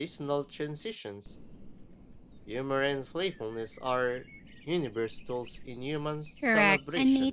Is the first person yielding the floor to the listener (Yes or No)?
Yes